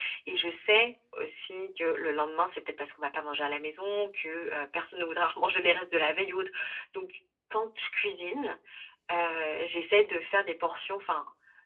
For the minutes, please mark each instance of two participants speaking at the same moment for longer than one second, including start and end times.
none

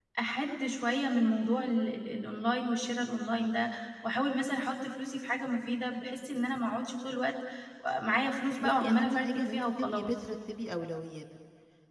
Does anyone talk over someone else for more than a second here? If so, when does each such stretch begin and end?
8.6-10.1

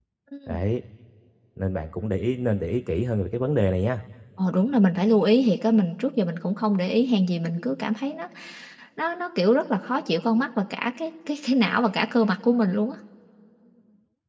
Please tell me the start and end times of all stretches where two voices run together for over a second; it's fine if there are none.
none

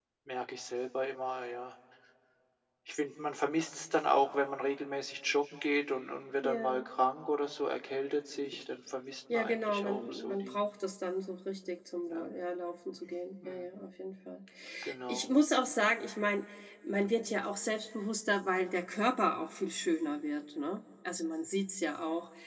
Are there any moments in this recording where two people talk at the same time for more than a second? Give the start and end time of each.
9.3-10.6

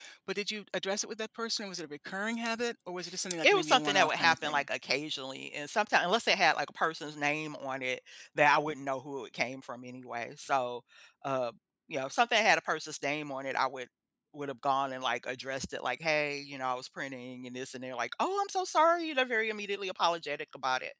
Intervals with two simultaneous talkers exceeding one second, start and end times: 3.4-4.7

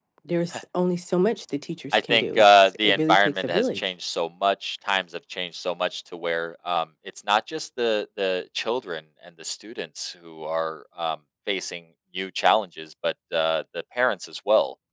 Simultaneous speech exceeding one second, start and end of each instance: 1.9-3.8

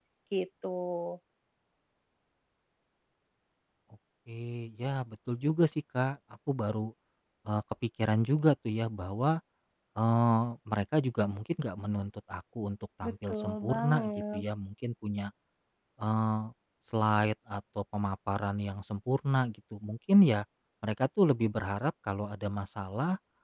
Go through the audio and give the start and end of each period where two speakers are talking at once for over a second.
13.0-14.4

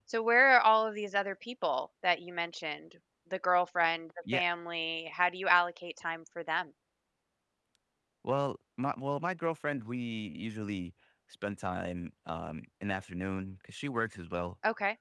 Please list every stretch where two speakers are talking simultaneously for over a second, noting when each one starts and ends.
none

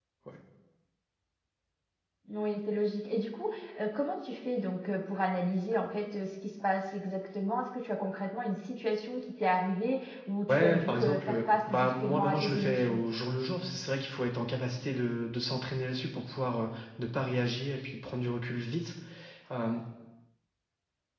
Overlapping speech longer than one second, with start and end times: 10.5-13.0

